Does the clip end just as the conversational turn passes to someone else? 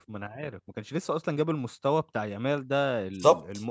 No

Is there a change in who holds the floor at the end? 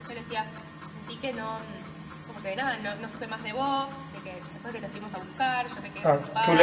Yes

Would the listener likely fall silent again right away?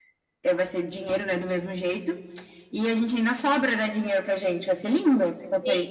No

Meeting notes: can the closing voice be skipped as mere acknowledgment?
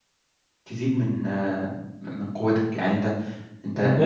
No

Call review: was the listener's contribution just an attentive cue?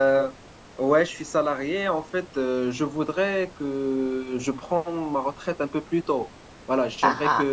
Yes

